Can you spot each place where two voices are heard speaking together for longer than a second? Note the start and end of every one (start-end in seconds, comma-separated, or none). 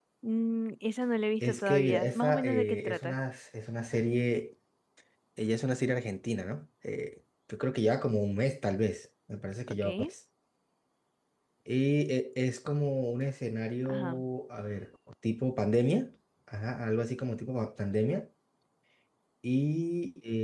1.4-3.1